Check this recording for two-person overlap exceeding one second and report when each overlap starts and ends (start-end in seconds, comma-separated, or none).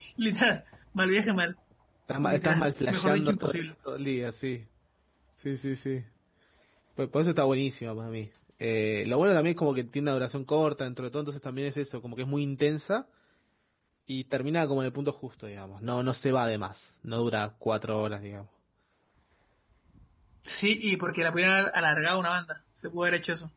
2.2-3.6